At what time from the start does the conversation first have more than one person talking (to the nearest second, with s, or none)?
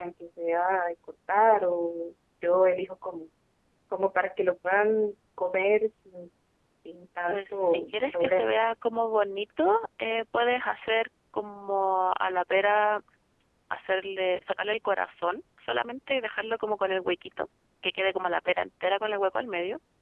7 s